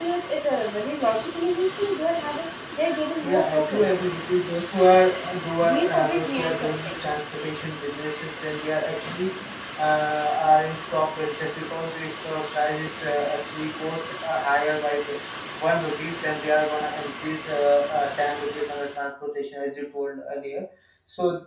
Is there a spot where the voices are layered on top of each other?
Yes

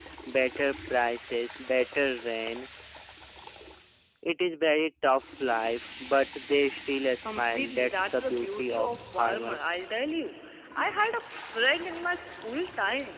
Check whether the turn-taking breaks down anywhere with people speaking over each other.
Yes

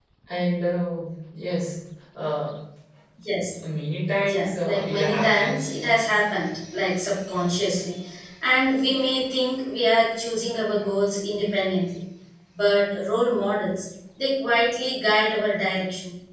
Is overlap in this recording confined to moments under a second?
No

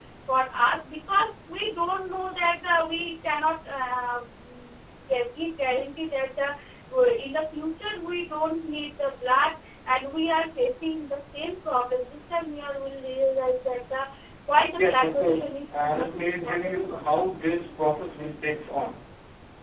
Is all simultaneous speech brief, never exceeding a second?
No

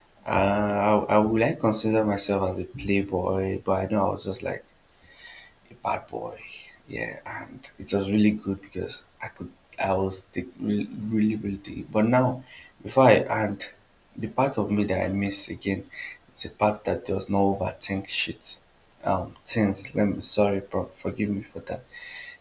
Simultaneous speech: No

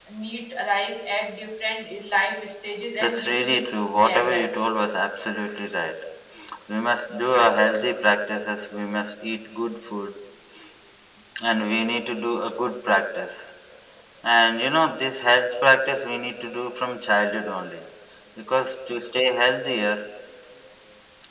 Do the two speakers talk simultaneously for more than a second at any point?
Yes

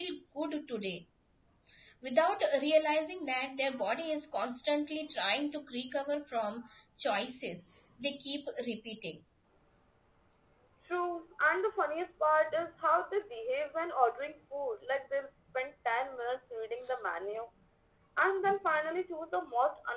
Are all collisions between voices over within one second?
Yes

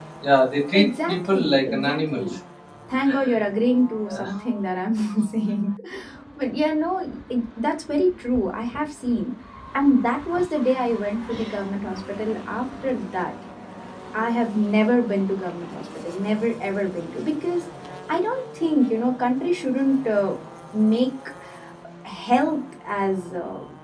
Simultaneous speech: Yes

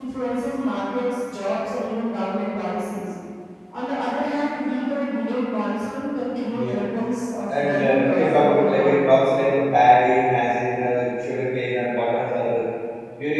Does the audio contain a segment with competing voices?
Yes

